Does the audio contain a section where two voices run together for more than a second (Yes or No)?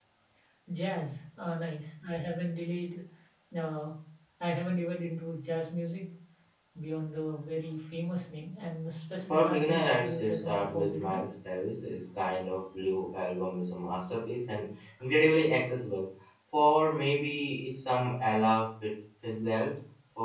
Yes